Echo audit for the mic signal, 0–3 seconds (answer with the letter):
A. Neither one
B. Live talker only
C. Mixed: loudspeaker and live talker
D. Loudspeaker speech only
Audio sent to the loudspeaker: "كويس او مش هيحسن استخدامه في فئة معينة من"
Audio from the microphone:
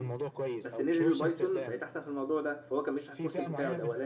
C